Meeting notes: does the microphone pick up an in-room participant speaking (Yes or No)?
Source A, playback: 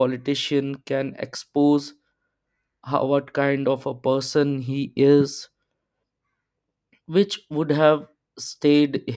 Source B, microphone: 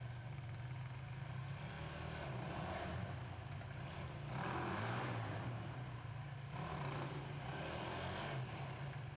No